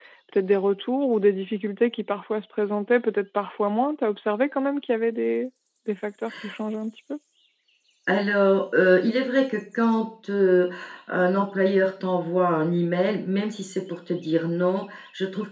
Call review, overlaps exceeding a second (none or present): none